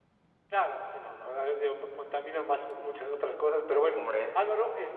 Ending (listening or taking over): listening